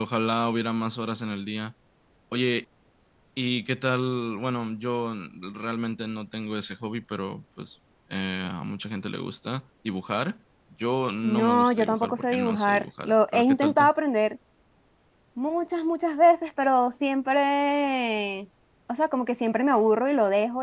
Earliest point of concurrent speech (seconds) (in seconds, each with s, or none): 11.2 s